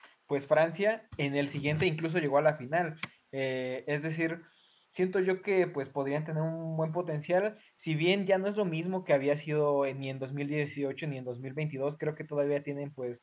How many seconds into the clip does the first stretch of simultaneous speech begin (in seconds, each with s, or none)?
none